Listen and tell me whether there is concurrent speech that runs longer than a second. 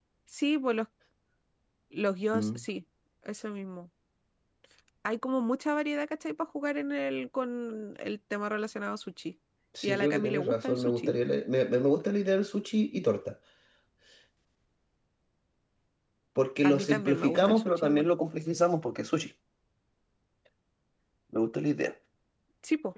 Yes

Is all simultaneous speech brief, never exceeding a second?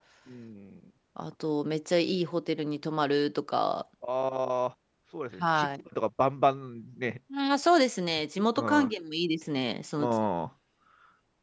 Yes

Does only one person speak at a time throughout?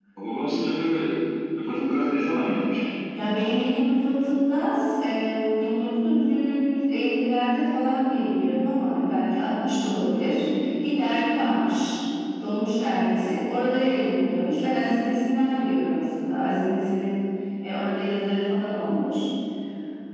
Yes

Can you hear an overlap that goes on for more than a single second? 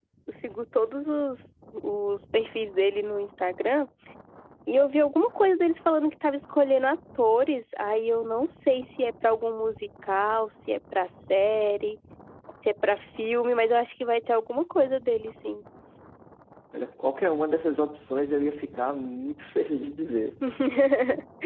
No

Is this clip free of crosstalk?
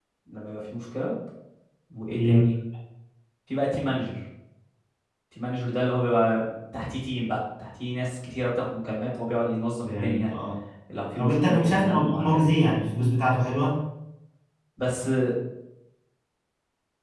No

